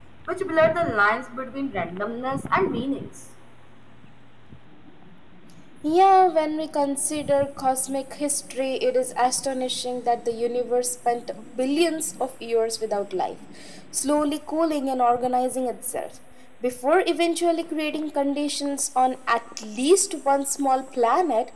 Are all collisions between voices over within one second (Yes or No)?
Yes